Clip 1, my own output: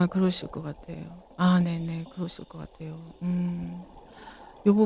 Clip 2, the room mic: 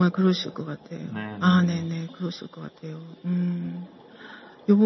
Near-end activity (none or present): present